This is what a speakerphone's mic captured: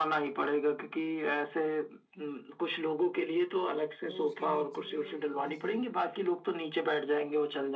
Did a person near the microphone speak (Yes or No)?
Yes